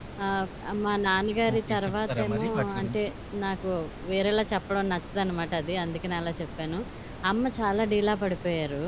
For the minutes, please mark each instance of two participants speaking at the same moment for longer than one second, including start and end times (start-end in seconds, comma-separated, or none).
1.5-3.0